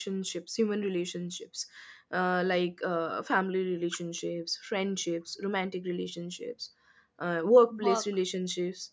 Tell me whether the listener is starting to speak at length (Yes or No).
No